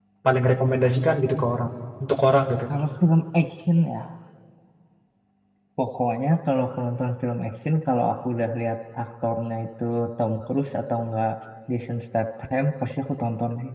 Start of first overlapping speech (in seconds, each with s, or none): none